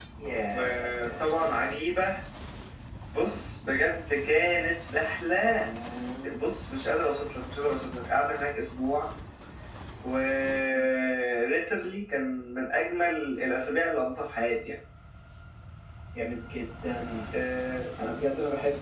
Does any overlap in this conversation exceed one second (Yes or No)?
Yes